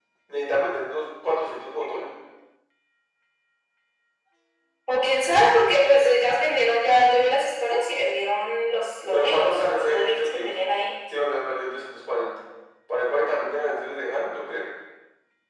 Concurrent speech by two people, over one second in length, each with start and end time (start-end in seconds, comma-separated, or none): 9.1-10.5